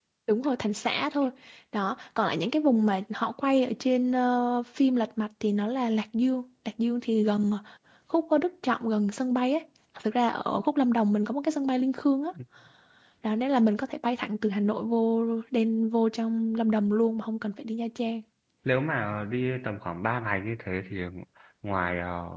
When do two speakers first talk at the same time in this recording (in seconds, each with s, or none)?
none